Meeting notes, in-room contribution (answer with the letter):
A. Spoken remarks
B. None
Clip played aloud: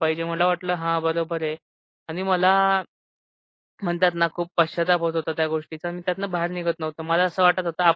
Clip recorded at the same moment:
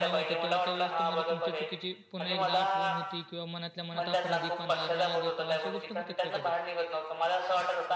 A